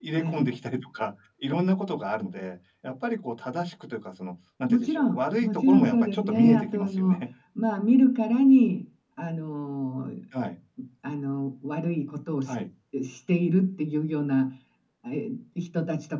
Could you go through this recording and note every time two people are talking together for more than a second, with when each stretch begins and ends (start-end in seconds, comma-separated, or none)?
4.7-7.3